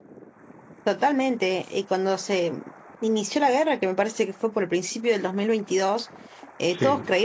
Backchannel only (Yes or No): Yes